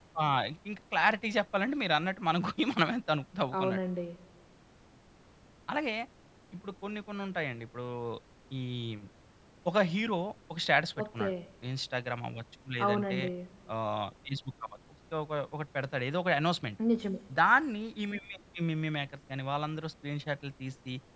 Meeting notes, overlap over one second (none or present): none